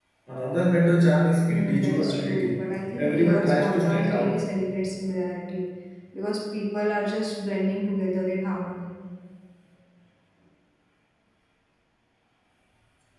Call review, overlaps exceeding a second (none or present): present